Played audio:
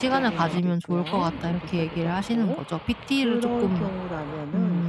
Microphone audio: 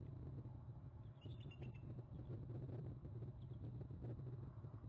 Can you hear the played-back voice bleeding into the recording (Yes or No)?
No